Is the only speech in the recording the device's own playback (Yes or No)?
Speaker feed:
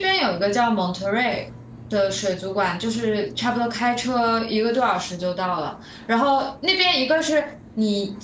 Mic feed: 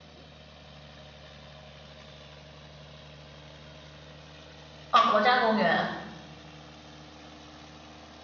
No